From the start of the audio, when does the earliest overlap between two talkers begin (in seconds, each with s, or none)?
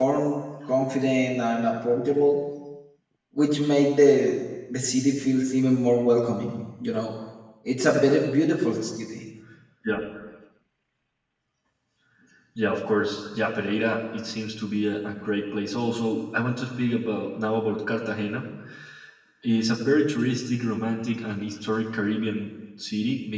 none